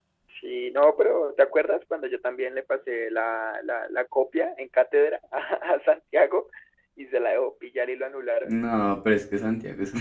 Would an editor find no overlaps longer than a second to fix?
Yes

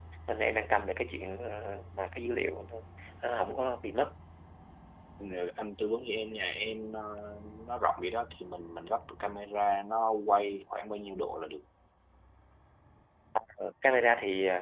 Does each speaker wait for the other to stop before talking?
Yes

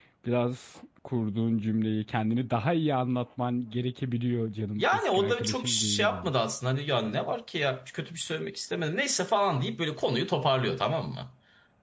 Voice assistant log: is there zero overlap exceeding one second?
No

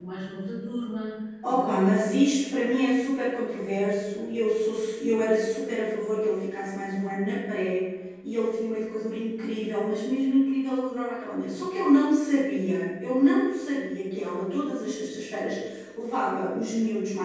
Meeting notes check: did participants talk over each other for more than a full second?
No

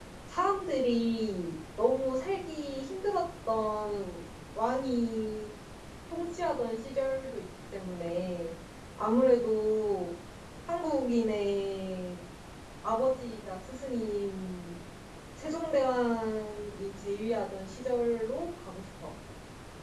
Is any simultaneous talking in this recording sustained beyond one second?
No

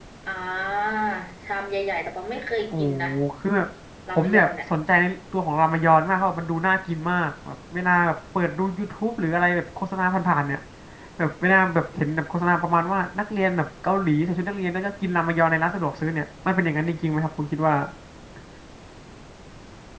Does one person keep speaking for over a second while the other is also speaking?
No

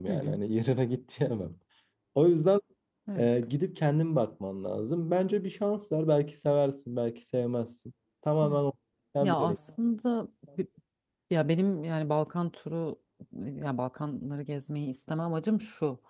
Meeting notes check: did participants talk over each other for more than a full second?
No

